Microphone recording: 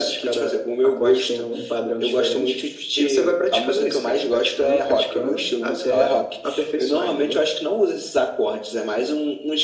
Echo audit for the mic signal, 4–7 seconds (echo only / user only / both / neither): echo only